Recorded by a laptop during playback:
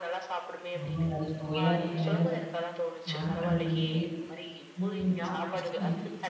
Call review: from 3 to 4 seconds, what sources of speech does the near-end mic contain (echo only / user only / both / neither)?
both